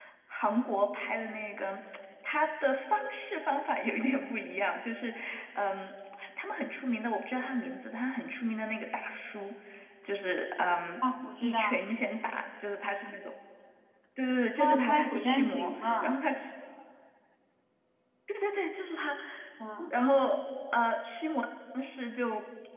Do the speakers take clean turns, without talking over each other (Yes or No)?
No